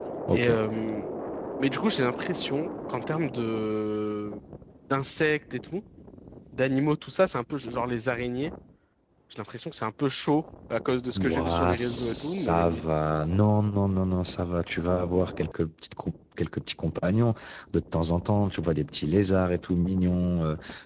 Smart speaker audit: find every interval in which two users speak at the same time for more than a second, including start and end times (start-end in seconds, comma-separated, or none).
11.2-12.8